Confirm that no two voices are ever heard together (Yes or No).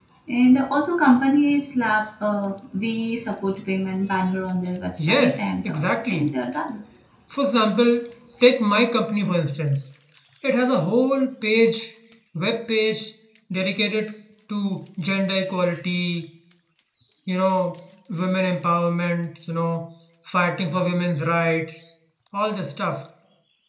No